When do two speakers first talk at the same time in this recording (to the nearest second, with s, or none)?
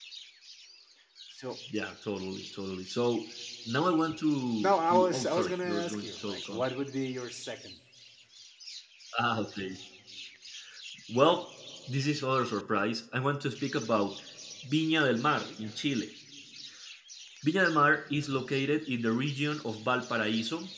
5 s